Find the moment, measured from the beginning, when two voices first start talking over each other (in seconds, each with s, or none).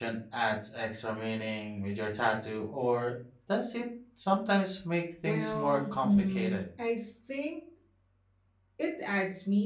5.2 s